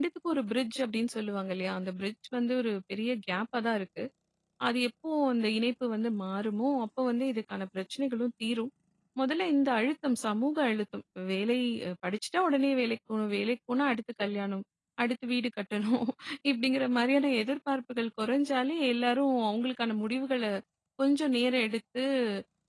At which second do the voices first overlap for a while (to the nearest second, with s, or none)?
none